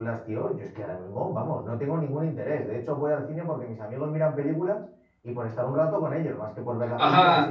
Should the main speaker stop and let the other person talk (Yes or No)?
Yes